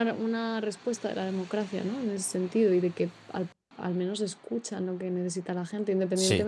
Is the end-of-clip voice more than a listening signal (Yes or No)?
No